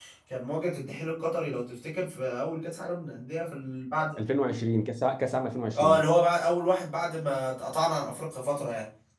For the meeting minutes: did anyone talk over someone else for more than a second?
No

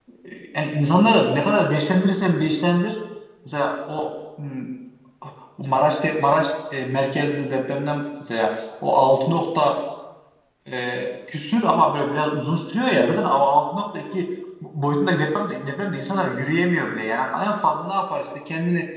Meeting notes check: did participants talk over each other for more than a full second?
No

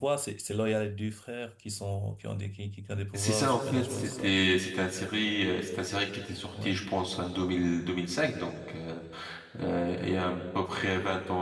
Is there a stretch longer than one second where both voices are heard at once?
Yes, from 3.2 s

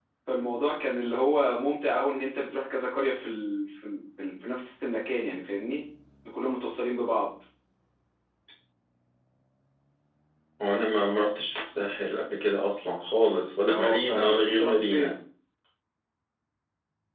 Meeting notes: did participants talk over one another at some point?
Yes, from 13.6 s

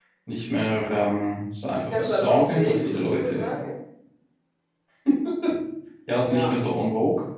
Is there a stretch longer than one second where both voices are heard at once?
Yes, from 1.9 s

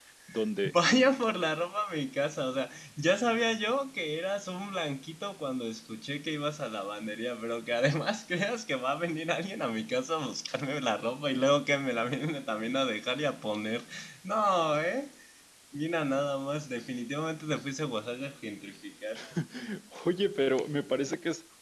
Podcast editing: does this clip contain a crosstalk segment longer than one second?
No

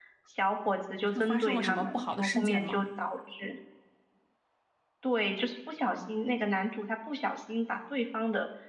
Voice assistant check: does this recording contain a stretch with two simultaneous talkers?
Yes, from 1.1 s

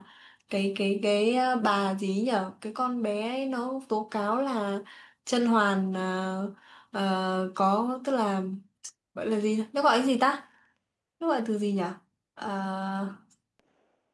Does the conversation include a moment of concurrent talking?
No

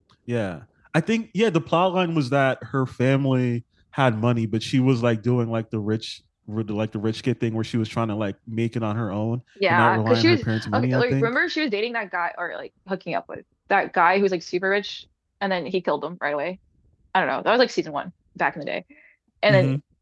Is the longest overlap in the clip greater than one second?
Yes, from 9.6 s

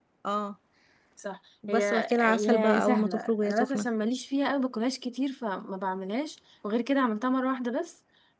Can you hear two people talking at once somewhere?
Yes, from 1.7 s

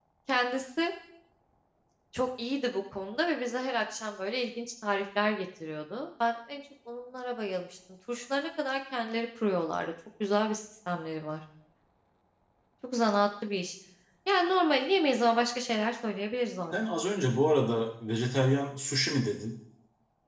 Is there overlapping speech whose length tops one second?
No

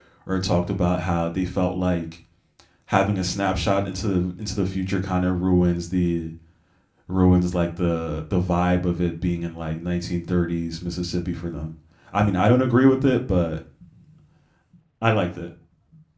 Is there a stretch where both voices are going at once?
No

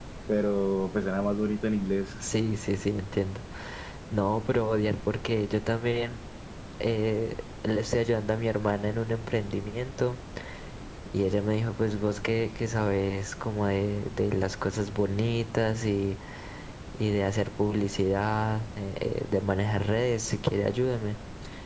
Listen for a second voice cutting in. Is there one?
No

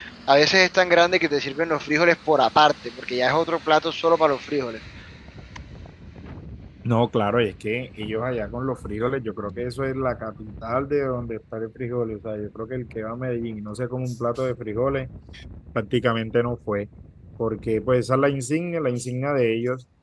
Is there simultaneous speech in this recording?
No

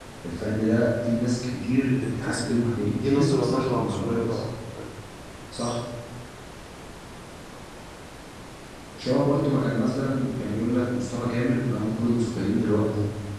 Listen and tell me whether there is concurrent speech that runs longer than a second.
Yes, from 2.2 s

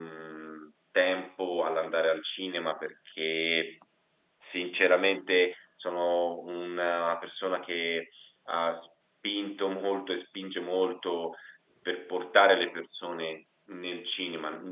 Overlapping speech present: No

